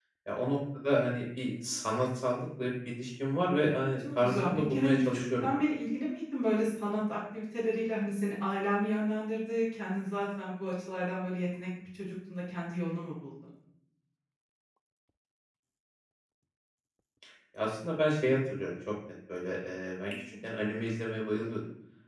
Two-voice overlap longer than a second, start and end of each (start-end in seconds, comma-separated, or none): 4.0-5.6